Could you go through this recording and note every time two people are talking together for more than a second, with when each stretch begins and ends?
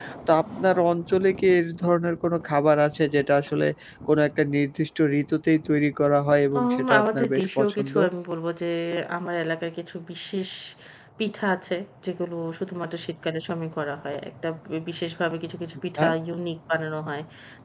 6.5-7.9

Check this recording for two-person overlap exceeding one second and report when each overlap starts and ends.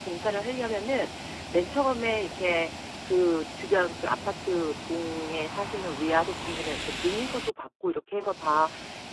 none

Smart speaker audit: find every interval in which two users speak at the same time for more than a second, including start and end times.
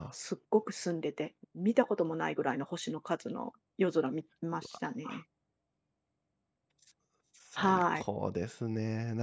none

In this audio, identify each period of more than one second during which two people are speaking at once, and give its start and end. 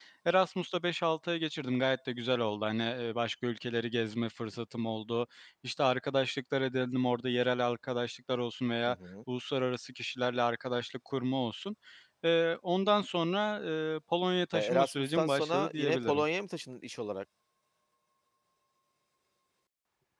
14.5-16.2

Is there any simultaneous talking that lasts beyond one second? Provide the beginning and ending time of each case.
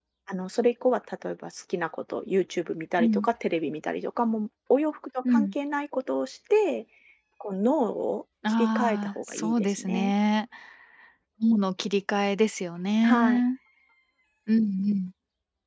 8.6-10.1

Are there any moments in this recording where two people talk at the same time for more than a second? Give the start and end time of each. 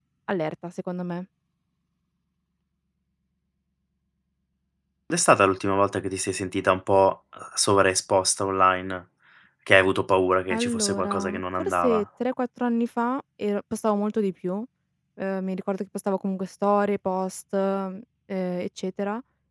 10.5-12.0

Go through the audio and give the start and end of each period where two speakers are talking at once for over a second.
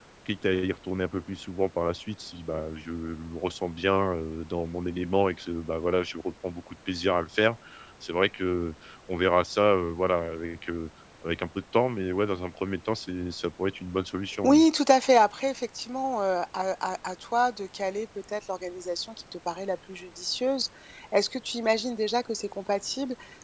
none

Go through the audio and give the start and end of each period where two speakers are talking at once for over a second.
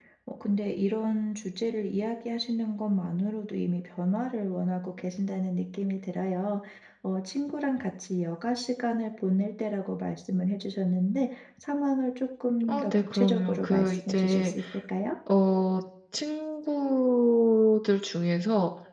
12.7-14.5

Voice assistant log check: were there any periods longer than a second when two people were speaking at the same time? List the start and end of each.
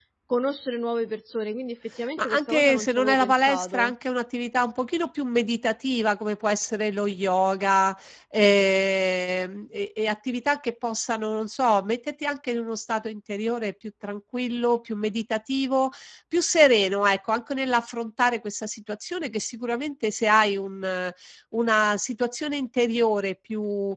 2.2-3.9

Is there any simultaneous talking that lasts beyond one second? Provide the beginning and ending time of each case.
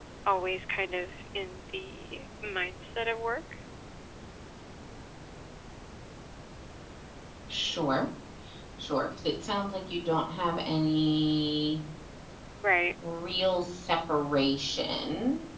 none

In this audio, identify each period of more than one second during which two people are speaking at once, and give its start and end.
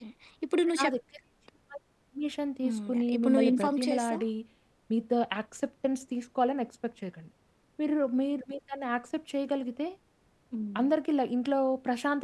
2.6-4.2

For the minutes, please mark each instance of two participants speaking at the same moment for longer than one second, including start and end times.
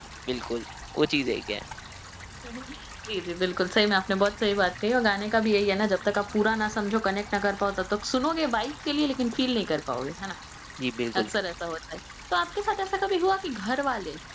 none

